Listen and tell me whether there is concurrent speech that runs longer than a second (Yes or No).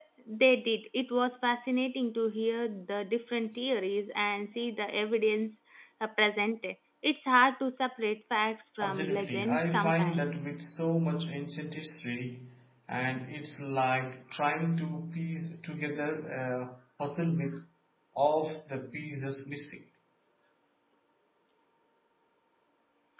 Yes